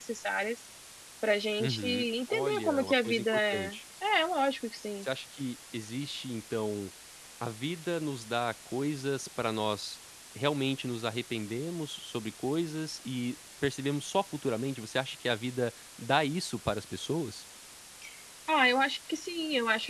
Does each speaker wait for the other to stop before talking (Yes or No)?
No